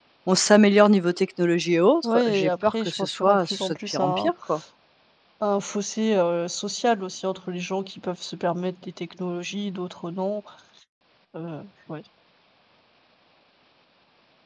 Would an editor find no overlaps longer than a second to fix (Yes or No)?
No